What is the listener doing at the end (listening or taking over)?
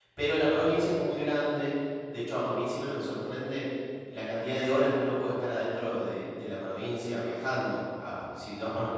listening